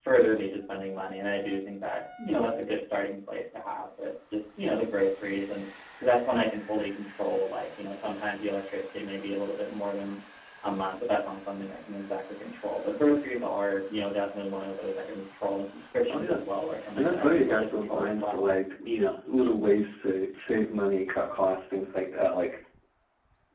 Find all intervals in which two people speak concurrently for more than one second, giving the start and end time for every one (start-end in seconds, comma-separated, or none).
17.0-18.5